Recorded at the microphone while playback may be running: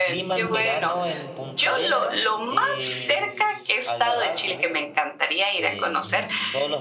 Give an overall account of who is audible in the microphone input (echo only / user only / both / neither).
both